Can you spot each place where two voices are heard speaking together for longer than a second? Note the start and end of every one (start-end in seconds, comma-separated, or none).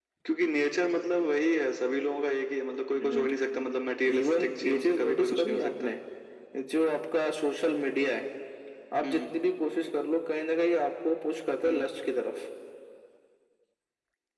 4.1-5.9